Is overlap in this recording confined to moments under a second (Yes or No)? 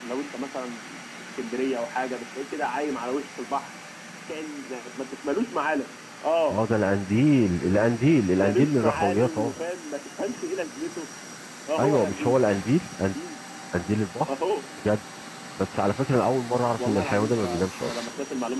No